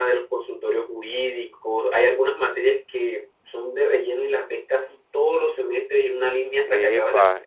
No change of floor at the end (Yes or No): No